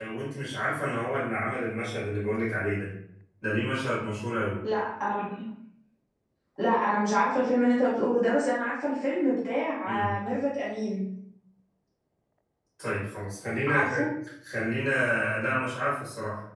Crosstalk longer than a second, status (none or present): none